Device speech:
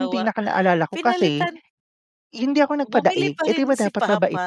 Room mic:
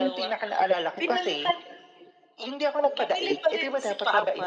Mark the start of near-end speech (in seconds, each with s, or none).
none